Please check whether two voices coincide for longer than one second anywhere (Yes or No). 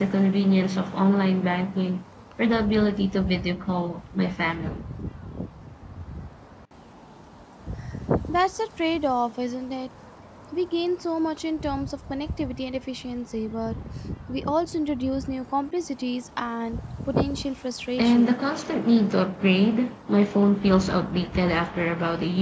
No